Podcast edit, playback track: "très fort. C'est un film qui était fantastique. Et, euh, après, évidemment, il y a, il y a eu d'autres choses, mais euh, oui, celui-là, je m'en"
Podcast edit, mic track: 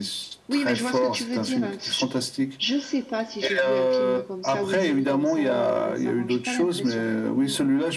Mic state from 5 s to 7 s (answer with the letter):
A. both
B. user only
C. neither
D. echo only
A